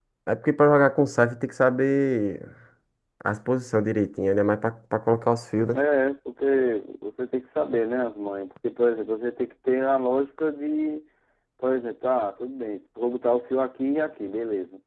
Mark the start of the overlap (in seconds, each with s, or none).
none